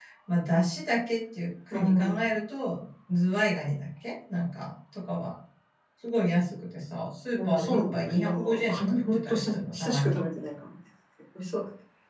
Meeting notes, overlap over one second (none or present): present